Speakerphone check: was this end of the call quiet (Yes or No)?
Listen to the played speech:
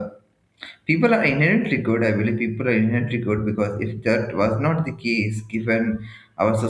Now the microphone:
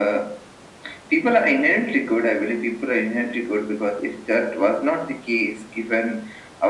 Yes